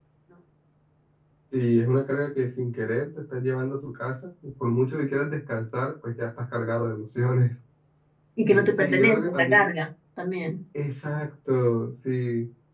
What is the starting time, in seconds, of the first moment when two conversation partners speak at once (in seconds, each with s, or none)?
8.4 s